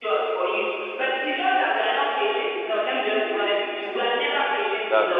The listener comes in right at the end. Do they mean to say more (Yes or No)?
No